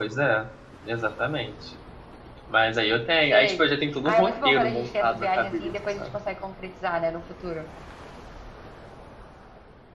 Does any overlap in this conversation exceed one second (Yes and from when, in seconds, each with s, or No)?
Yes, from 3.3 s